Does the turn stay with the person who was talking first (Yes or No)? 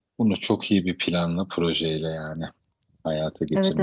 No